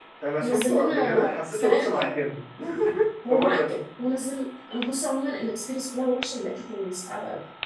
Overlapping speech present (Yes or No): Yes